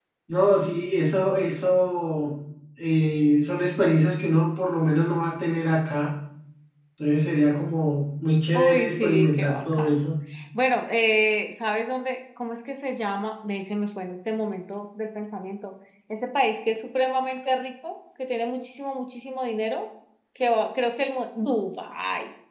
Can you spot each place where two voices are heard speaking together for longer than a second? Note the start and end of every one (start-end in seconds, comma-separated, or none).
8.5-9.9